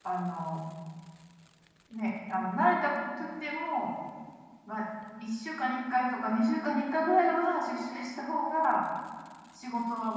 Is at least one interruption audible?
No

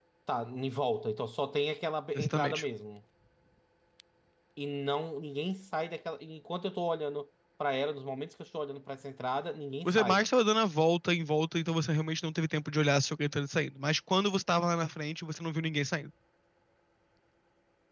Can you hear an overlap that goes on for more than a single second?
No

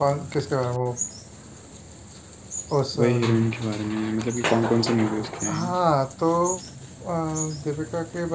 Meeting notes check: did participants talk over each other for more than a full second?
No

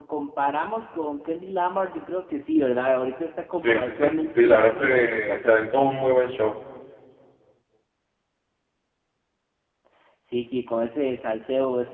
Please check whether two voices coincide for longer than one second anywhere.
Yes, from 3.6 s

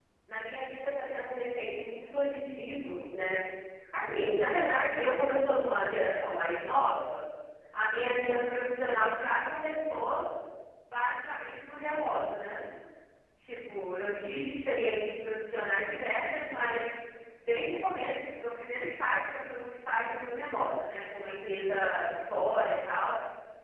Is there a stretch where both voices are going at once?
No

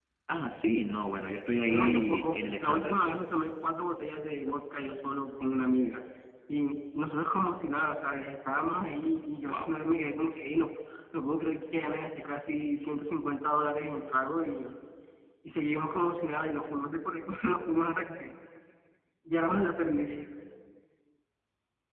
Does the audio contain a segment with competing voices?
Yes, from 1.7 s

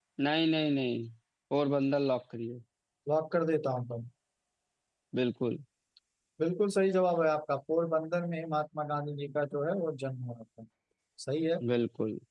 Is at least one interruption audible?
No

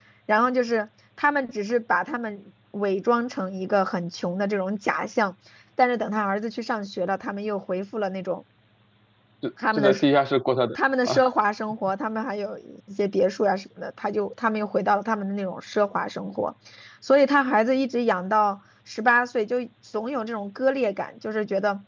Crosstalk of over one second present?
No

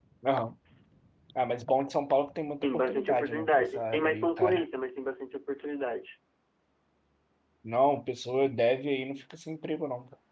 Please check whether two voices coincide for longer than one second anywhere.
Yes, from 2.6 s

